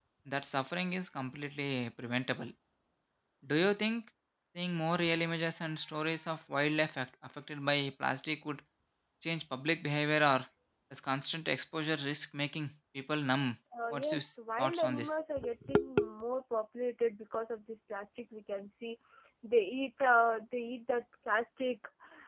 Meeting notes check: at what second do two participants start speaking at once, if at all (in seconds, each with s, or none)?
13.7 s